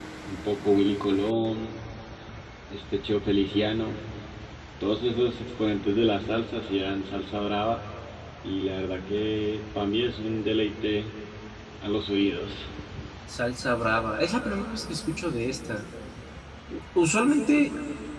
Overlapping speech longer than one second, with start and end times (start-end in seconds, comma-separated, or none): none